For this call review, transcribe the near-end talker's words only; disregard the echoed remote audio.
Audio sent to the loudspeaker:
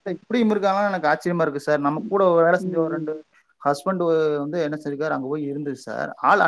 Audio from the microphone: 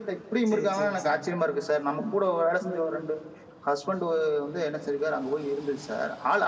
சரி சரி சரி

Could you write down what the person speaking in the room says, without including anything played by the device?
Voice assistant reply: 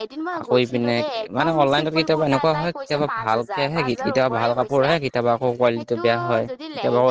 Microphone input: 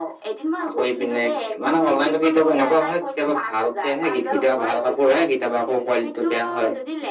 none

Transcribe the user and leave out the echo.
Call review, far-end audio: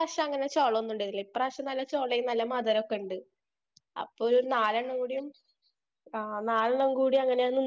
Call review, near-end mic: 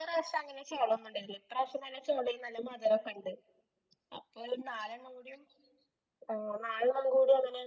none

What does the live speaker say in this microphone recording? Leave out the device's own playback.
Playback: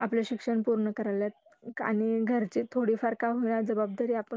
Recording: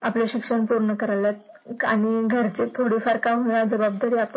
none

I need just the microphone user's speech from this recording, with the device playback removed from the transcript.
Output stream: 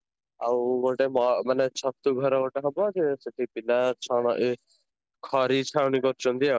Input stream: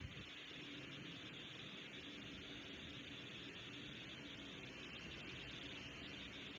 none

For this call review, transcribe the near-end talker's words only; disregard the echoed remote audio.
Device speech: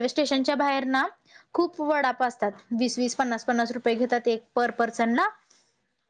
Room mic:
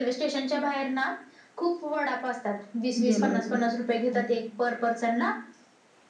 गेलो होतो हम्म,

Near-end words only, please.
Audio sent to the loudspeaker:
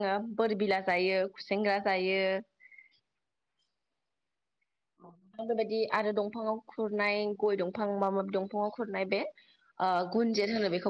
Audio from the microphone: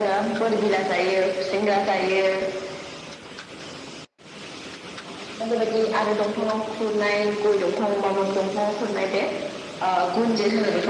none

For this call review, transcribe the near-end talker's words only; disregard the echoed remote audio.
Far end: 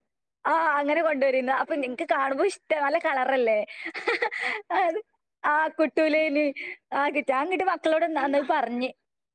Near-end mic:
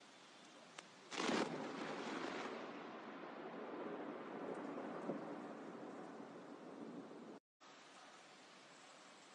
none

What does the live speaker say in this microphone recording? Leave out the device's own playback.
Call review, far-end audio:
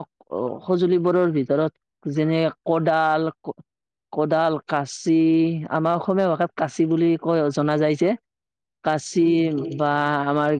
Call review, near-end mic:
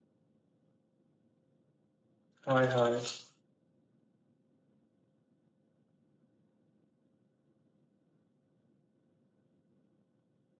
হয় হয়

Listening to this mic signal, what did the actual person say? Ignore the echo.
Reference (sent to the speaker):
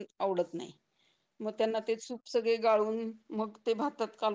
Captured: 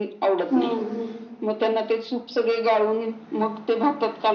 हम्म

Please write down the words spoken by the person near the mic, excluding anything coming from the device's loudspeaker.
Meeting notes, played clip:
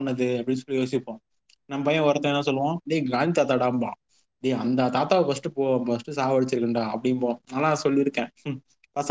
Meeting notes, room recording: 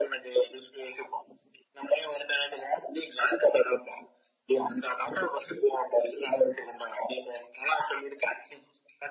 none

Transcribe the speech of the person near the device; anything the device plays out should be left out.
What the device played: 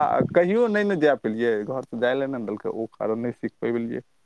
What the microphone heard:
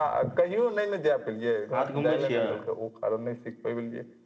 हाथ घुमबै छियै

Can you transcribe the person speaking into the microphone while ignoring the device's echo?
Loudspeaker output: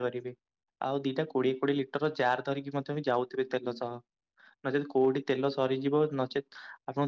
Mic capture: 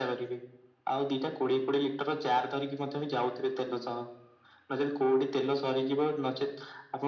none

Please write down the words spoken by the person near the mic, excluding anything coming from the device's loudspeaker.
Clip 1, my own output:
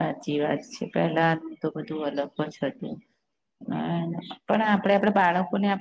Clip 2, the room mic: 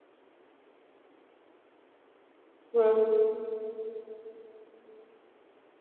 હમ

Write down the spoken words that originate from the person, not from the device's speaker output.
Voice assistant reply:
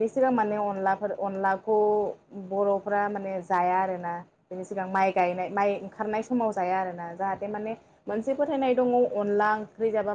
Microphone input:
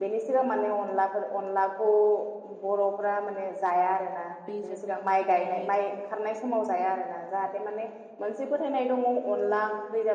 बेजोंनो ओंखारनाय

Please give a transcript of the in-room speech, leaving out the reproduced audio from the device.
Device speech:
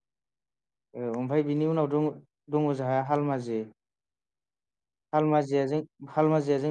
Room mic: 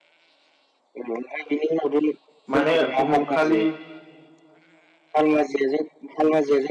माने उमुख खालि

